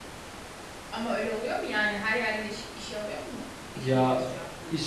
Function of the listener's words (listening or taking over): taking over